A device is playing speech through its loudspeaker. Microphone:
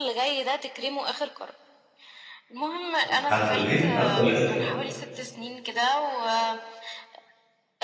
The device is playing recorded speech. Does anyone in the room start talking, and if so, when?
3.0 s

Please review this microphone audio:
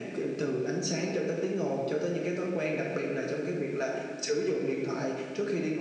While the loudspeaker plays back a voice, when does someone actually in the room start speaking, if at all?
none

